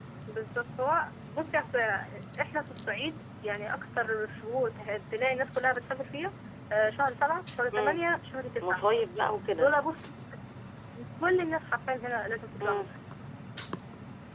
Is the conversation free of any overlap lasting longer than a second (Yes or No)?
Yes